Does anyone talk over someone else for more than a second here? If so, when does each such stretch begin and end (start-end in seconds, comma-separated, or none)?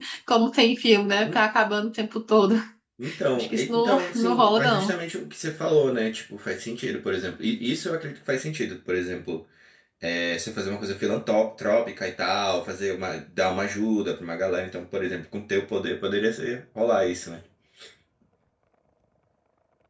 3.4-4.9